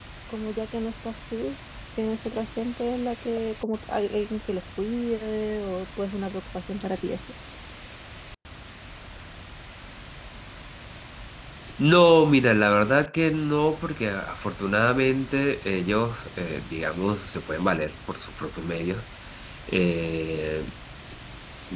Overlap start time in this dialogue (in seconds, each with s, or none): none